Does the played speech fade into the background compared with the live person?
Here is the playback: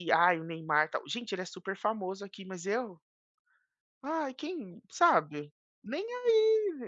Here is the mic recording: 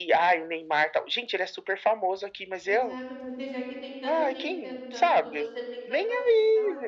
No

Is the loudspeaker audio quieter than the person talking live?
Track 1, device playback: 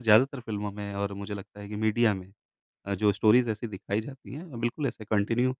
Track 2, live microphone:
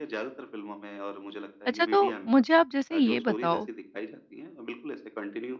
Yes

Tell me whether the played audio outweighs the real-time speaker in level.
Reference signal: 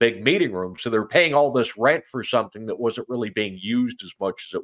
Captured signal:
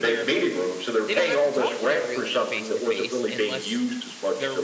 Yes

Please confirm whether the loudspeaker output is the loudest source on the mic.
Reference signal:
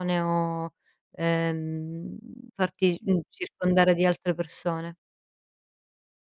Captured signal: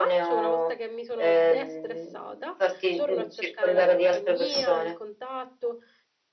Yes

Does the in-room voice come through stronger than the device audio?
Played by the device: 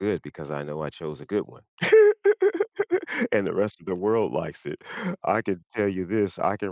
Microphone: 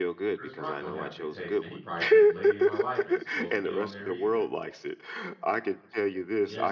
No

